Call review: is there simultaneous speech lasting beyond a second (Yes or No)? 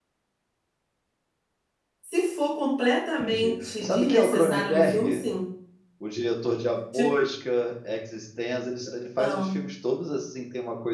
Yes